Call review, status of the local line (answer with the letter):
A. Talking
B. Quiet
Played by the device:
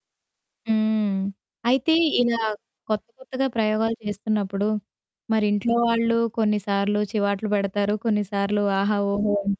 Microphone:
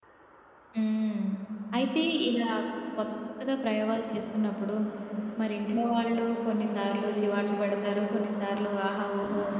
B